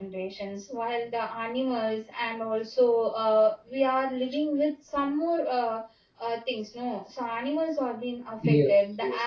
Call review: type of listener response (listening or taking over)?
listening